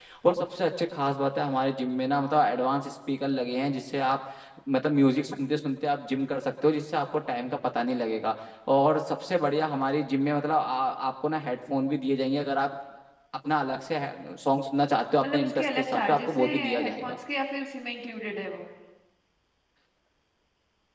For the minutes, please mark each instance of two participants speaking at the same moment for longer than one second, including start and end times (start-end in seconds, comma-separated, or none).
15.2-17.2